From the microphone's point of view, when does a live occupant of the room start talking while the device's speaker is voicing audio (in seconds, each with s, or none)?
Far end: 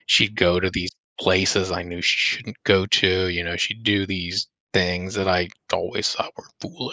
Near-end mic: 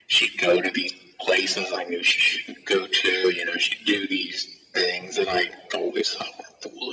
none